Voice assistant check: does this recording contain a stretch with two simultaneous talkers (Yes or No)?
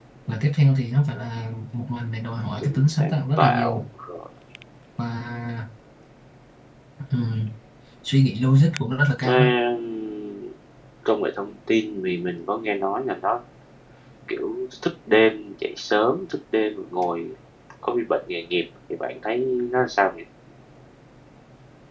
Yes